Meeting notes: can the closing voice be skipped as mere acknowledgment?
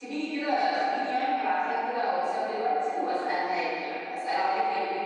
Yes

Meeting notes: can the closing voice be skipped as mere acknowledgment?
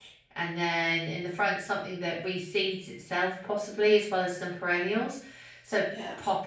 Yes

